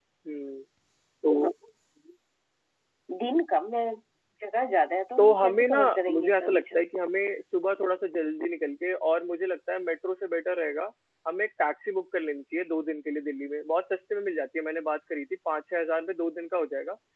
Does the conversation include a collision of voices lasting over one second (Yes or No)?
Yes